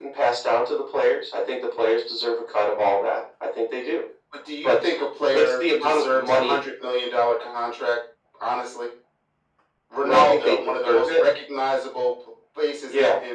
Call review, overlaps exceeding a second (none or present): present